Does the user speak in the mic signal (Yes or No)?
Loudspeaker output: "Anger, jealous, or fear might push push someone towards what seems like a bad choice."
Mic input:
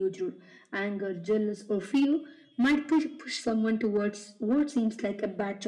No